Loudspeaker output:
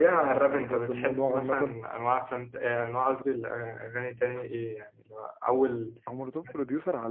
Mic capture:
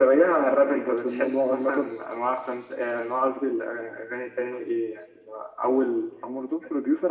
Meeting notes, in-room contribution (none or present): none